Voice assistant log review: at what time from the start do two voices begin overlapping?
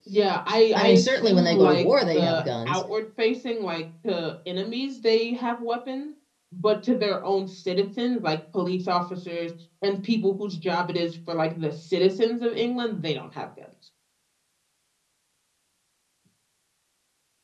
0.8 s

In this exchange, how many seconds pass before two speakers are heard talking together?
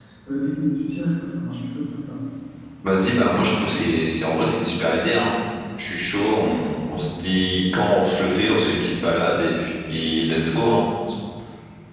none

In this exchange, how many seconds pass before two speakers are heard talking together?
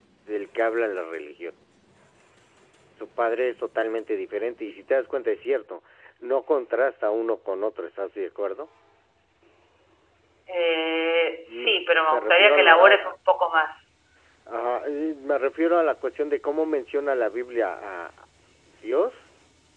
11.5 s

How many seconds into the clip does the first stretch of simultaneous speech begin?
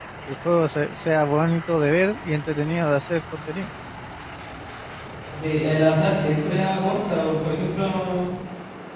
none

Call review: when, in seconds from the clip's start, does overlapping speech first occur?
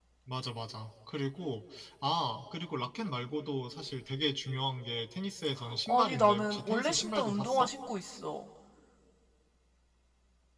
5.6 s

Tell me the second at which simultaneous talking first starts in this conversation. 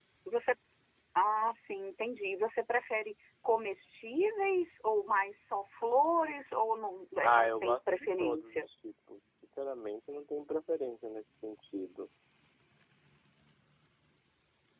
7.2 s

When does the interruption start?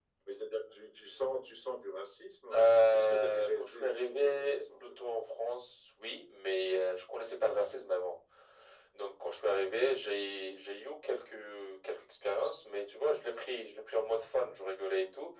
2.5 s

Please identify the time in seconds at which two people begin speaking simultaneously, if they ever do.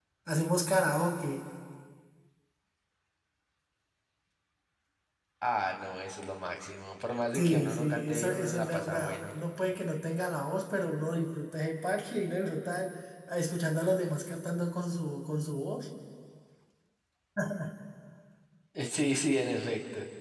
7.3 s

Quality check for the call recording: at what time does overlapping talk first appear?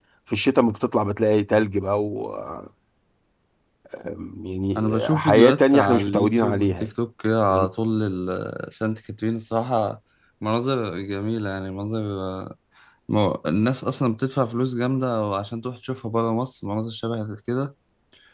4.8 s

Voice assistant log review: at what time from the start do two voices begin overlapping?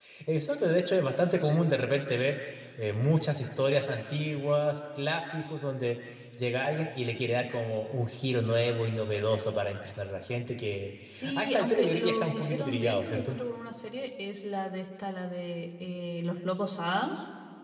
11.3 s

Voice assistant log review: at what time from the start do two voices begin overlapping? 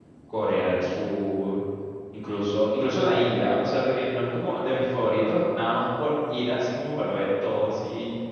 none

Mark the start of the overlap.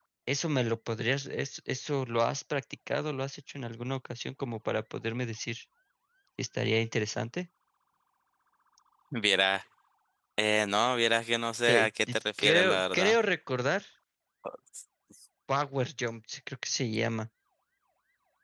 11.7 s

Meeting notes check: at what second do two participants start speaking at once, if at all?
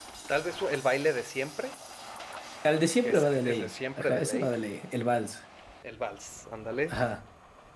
3.0 s

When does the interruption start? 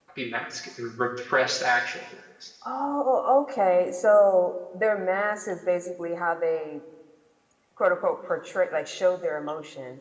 none

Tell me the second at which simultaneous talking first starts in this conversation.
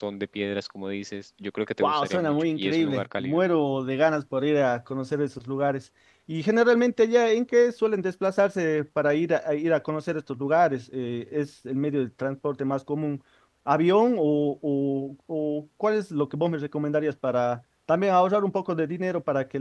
1.8 s

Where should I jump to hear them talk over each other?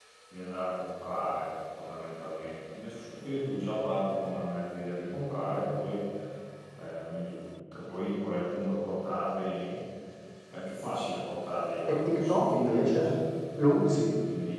11.9 s

